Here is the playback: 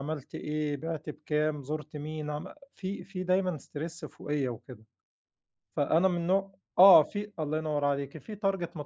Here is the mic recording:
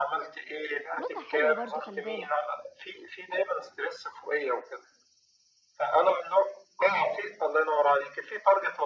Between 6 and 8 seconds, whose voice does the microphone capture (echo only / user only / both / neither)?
echo only